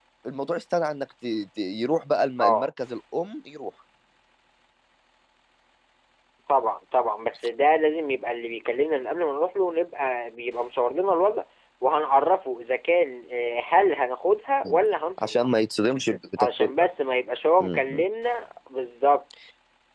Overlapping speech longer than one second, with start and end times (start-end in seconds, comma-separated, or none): none